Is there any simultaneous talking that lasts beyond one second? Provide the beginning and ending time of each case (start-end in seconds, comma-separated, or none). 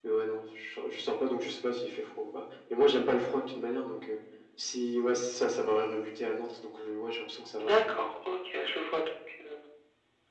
none